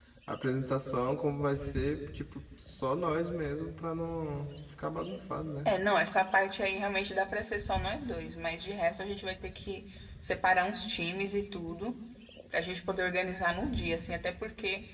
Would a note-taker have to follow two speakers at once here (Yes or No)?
No